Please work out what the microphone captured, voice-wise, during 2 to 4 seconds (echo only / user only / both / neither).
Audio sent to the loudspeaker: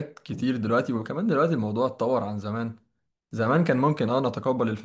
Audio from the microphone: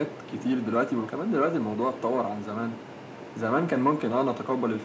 echo only